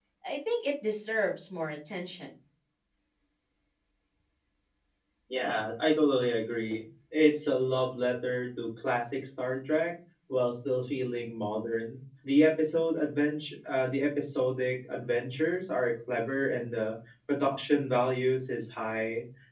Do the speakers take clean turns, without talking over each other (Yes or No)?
Yes